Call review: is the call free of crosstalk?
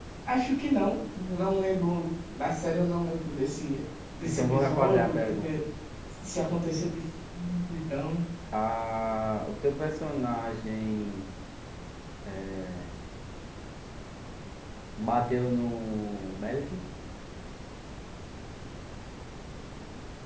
No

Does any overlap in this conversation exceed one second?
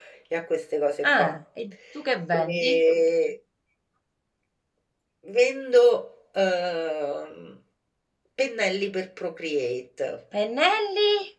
No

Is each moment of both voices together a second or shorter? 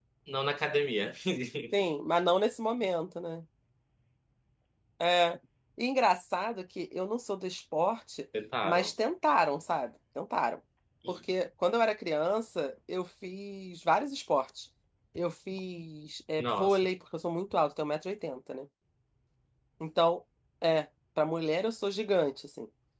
Yes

